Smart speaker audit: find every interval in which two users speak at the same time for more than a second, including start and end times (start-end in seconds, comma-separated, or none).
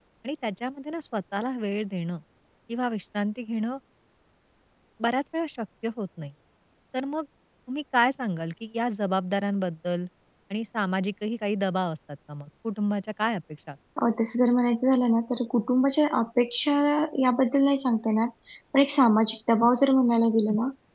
none